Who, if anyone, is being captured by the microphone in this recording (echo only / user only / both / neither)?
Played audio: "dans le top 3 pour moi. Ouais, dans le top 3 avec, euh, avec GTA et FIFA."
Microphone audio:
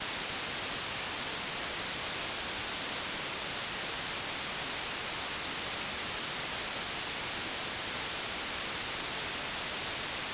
neither